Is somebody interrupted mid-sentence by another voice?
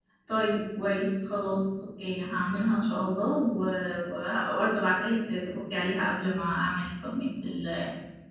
No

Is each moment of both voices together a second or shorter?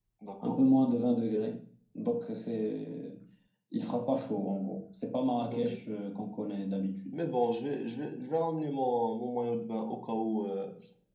Yes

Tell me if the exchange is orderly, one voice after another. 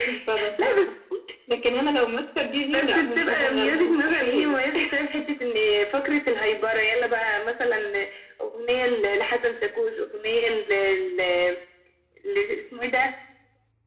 No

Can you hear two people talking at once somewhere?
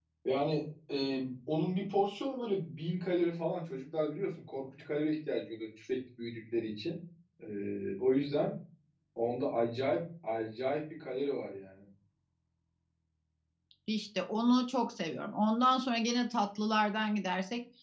No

